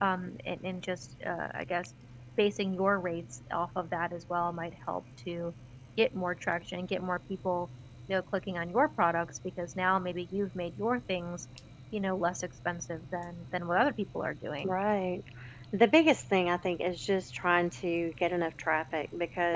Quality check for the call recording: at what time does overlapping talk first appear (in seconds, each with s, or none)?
none